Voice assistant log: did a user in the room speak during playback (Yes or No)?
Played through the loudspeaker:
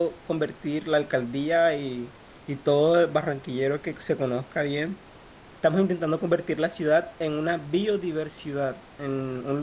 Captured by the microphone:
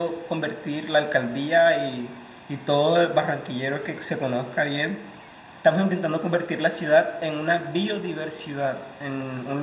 No